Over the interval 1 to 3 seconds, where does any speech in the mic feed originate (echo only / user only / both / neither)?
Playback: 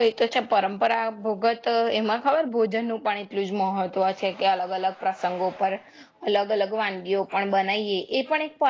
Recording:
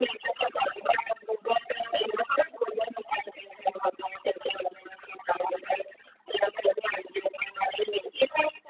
echo only